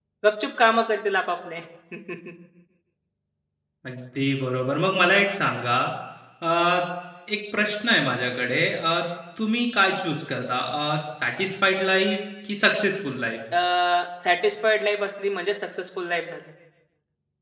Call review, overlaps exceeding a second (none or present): none